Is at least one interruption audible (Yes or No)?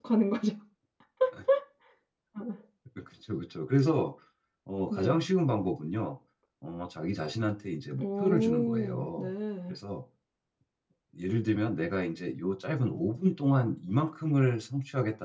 Yes